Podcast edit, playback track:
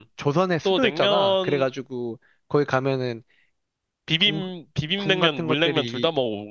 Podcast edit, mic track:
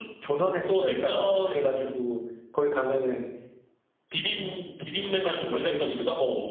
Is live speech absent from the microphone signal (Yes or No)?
Yes